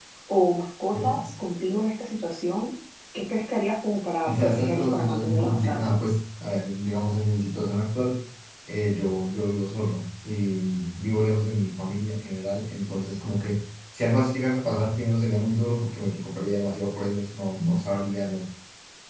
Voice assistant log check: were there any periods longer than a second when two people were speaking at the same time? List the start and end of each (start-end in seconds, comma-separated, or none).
4.2-5.9